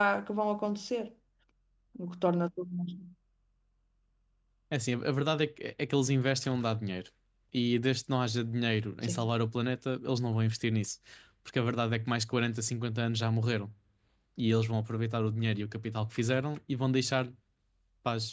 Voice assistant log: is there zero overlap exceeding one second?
Yes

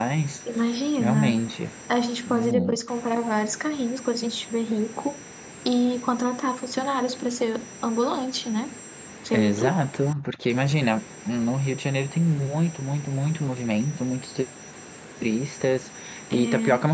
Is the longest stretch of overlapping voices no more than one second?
Yes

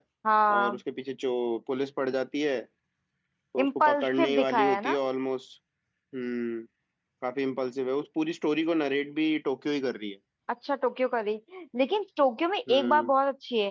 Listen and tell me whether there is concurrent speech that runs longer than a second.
Yes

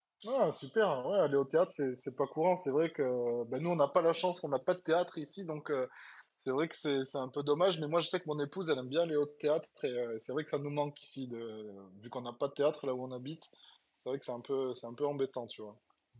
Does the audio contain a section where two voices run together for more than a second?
No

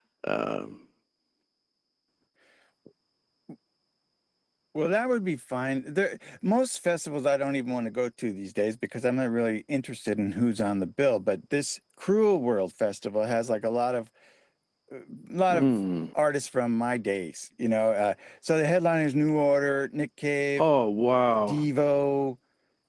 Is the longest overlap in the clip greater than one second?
No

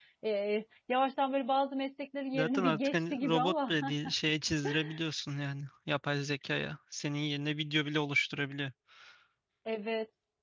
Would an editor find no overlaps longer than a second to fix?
No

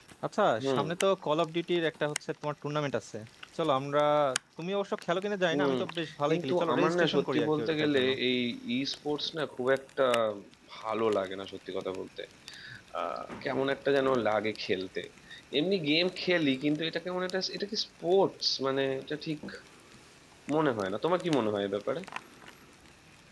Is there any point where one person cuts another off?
Yes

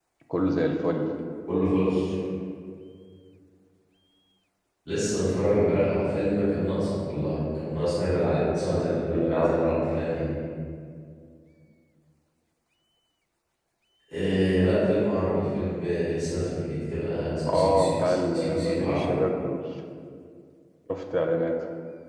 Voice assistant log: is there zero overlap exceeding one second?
No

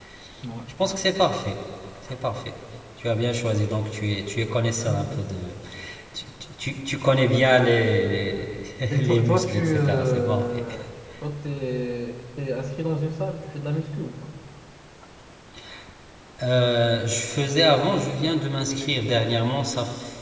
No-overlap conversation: No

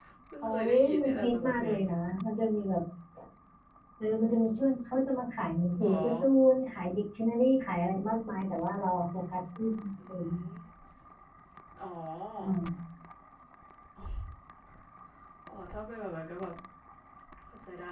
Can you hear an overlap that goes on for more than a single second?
Yes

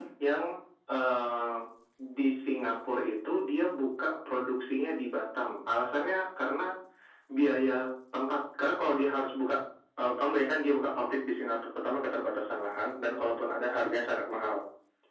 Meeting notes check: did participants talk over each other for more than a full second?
No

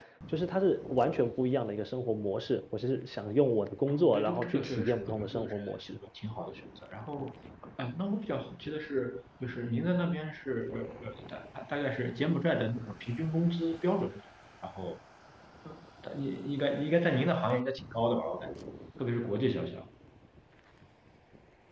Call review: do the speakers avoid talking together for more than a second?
No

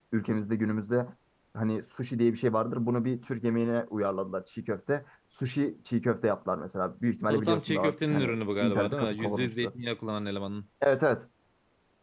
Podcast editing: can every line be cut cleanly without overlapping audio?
No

